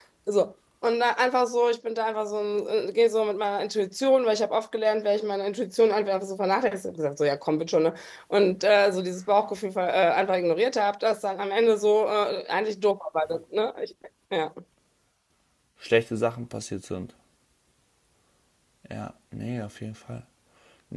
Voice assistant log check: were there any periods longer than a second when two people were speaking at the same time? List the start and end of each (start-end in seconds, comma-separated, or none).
none